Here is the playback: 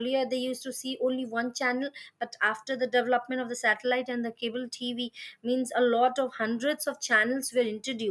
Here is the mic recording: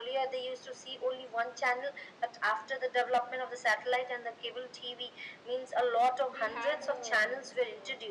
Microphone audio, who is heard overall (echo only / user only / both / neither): both